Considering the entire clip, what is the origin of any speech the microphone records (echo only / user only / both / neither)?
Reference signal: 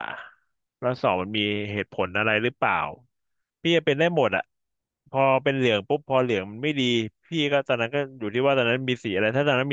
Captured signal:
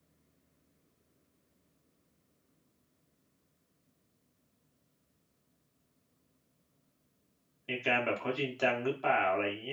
user only